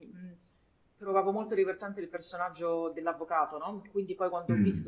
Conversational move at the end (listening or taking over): listening